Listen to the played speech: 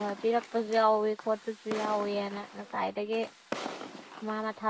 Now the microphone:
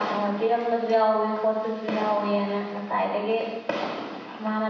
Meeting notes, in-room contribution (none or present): none